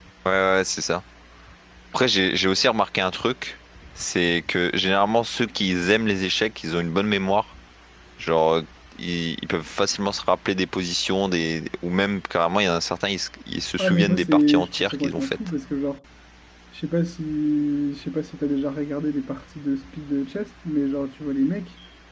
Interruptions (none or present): present